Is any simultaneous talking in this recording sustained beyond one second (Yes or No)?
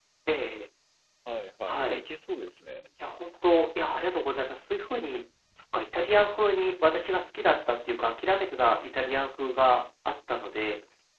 No